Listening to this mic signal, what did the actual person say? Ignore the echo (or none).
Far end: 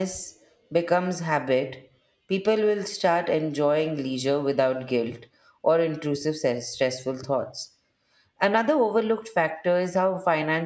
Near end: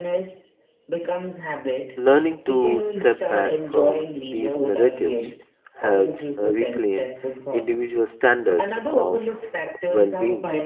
Learning to step back from these narratives helps uh, reclaim individual standards of well being.